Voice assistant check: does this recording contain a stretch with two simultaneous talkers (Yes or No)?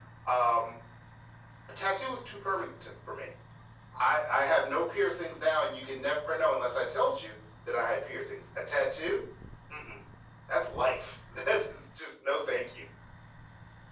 No